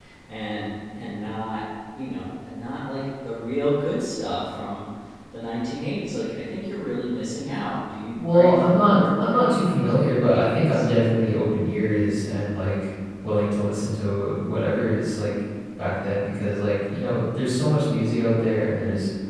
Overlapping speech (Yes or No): Yes